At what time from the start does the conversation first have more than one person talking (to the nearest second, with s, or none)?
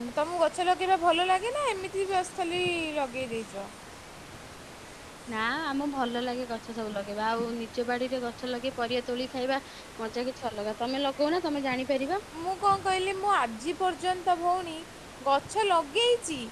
none